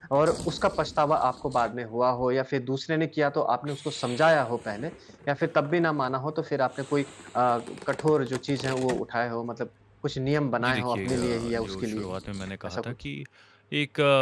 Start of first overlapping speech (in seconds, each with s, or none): 10.6 s